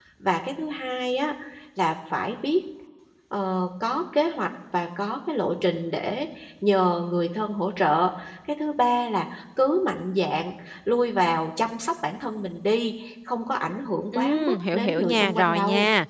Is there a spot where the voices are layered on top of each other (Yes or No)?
Yes